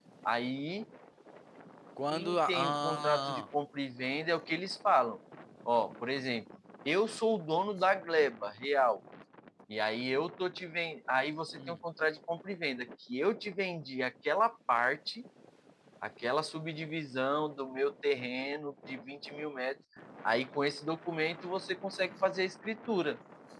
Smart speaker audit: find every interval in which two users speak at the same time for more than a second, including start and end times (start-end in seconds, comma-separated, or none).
2.1-3.4